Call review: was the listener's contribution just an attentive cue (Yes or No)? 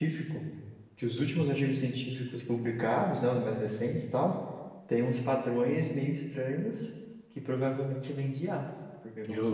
No